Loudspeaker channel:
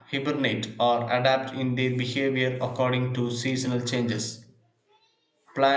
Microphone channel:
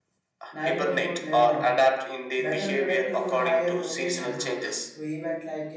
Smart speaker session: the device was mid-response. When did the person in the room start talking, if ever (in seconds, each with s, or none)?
0.5 s